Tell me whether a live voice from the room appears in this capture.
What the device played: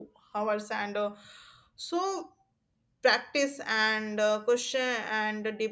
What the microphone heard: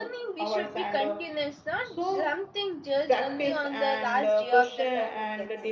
Yes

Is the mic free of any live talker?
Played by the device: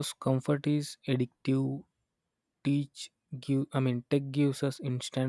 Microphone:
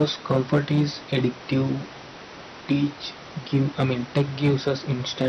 Yes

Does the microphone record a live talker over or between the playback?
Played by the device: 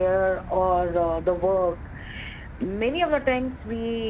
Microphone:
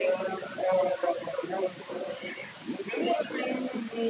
No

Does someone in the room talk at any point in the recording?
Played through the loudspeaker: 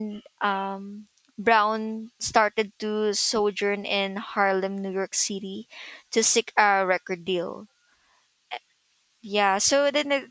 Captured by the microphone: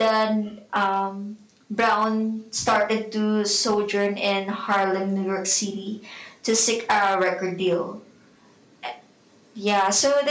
No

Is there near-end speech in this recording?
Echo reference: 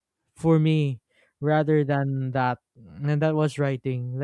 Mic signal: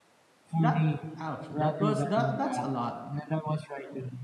Yes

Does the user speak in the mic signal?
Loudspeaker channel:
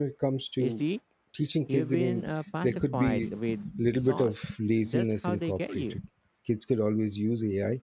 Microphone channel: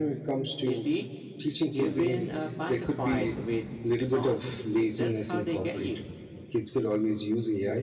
Yes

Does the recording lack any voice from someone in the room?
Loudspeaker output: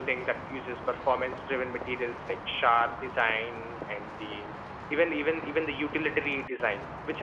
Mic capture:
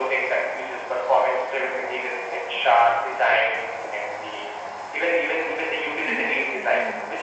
No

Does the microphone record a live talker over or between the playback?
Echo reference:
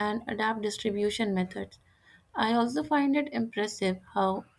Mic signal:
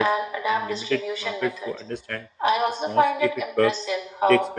Yes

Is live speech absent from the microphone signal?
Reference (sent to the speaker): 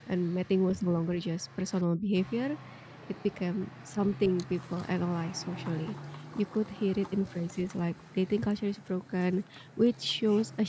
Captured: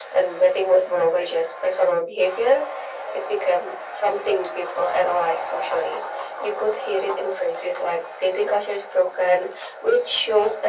Yes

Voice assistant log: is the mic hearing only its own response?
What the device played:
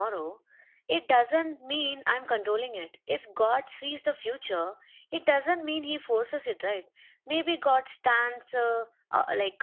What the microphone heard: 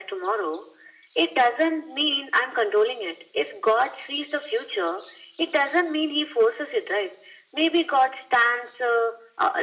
Yes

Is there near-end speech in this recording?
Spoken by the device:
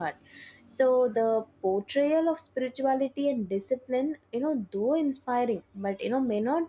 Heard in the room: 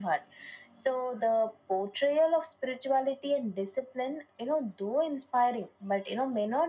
No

